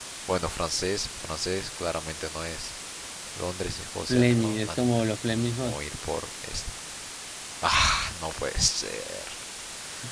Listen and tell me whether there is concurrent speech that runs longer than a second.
Yes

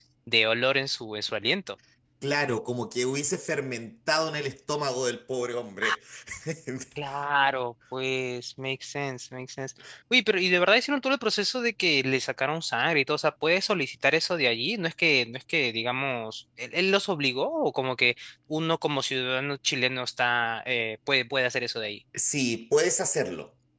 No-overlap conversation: Yes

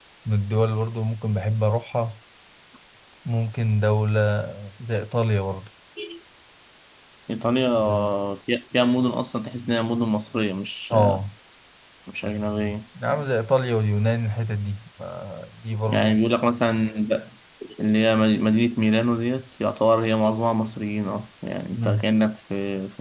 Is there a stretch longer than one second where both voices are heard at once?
No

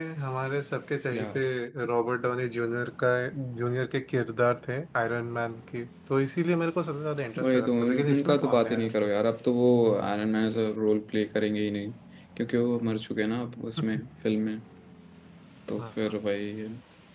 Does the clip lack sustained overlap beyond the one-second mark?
No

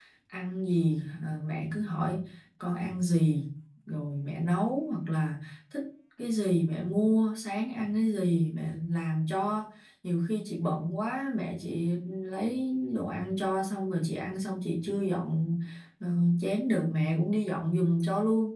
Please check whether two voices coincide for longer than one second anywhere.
No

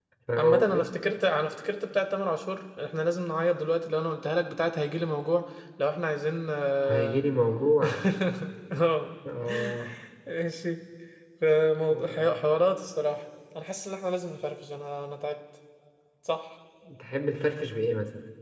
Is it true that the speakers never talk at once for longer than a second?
Yes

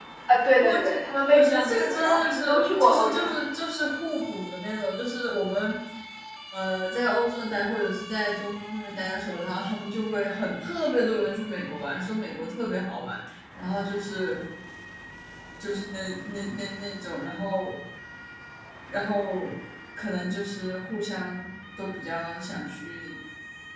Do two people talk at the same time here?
Yes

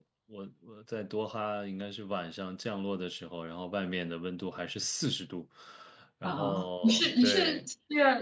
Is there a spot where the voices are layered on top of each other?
Yes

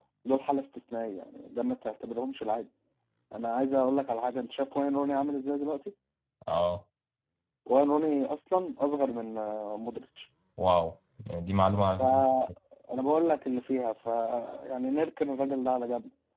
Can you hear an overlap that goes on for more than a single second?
No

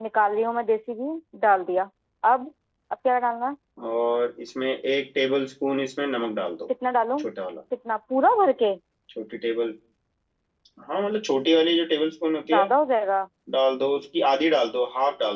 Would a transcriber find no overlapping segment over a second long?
Yes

